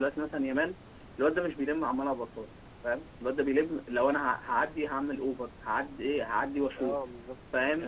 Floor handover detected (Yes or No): Yes